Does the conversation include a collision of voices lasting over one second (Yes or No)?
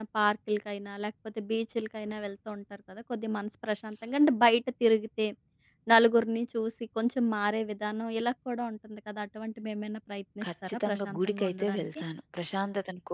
Yes